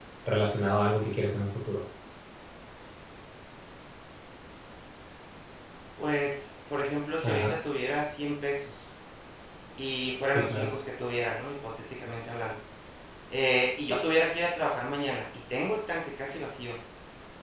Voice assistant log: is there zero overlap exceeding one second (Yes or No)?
Yes